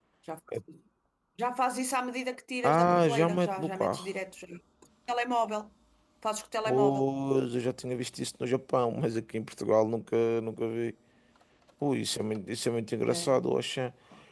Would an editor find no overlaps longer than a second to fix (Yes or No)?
No